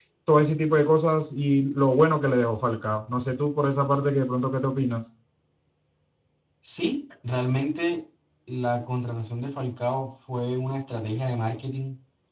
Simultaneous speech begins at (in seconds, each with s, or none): none